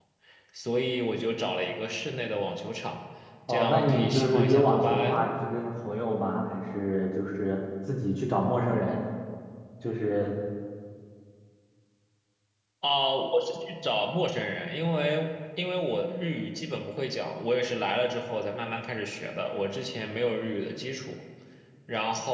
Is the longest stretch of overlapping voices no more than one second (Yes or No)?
No